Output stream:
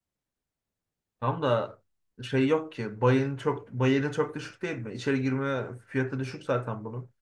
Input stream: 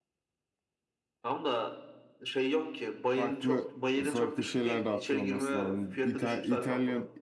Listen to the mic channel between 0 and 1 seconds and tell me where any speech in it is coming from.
neither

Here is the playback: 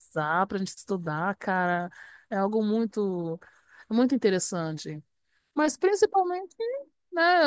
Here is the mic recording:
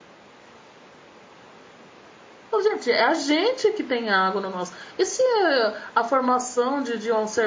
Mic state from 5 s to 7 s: user only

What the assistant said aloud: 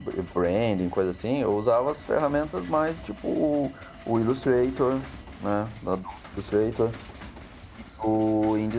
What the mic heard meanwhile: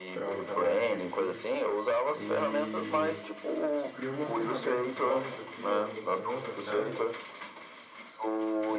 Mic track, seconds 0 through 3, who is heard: both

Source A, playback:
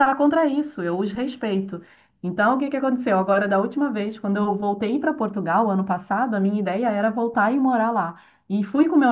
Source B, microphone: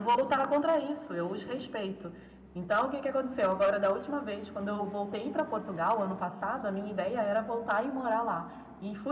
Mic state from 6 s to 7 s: echo only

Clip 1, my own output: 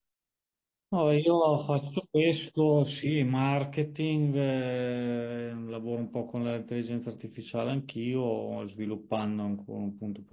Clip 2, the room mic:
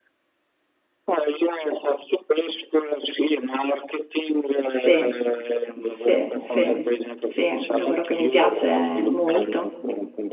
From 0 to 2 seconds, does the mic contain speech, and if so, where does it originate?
echo only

